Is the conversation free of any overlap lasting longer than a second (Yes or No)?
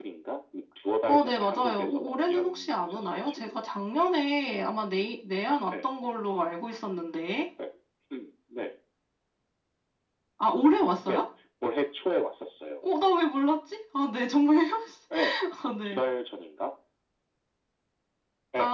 No